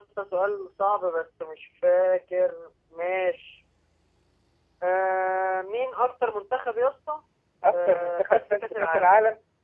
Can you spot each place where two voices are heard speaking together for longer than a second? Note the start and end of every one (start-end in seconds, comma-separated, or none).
7.7-9.1